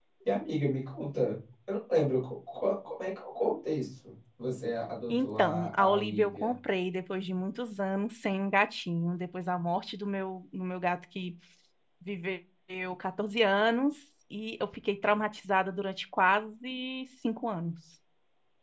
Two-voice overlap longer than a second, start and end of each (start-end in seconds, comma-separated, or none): 5.1-6.5